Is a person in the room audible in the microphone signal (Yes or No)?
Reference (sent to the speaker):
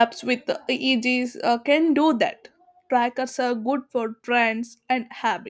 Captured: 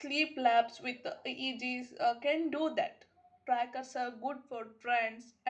No